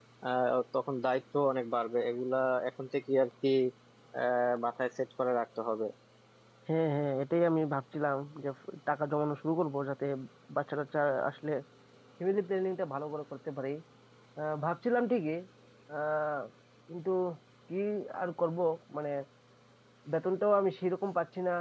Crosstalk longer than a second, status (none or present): none